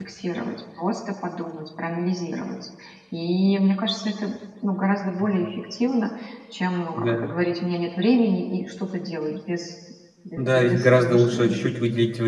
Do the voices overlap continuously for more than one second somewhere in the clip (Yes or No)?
Yes